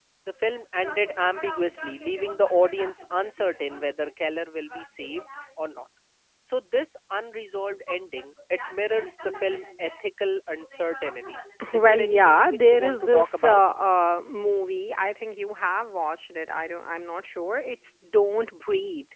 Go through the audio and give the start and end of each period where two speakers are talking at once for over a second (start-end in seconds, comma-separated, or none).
11.7-13.6